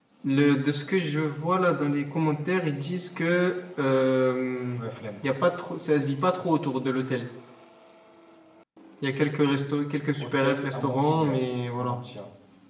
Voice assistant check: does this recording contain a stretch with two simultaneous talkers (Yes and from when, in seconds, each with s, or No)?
Yes, from 10.2 s